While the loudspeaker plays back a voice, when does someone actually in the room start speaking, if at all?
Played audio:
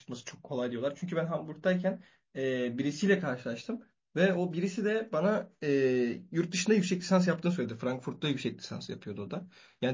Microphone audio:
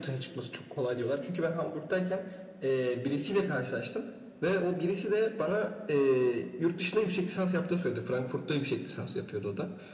none

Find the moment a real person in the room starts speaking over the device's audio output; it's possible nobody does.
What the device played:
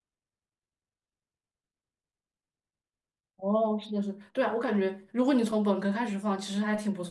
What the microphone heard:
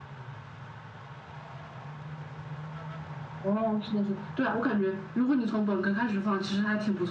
none

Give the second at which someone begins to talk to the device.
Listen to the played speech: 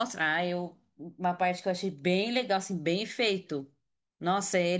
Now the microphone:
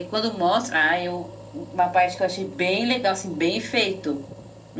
none

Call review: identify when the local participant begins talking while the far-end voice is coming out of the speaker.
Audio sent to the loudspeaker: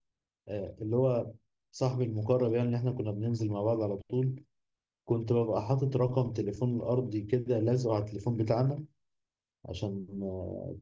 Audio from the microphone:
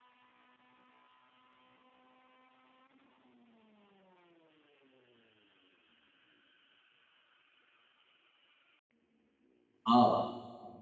10 s

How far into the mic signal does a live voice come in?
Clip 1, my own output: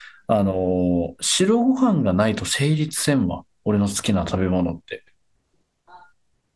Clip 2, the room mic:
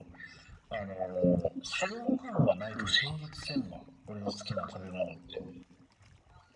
3 s

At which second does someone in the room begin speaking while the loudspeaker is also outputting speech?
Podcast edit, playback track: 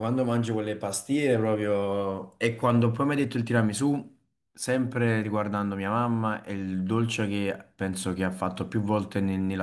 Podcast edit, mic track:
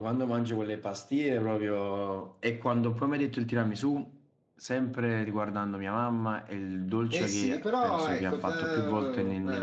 7 s

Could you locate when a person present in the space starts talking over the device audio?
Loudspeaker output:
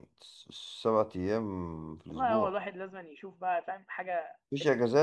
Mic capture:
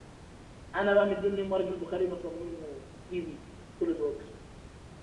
1 s

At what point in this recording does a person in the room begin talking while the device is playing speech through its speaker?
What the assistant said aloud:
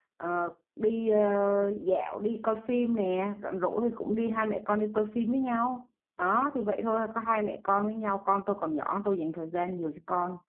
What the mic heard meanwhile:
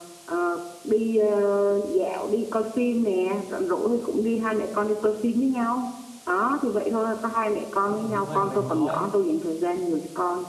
8 s

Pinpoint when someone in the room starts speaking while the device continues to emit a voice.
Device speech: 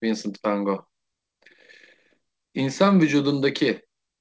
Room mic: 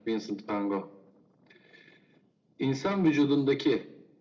none

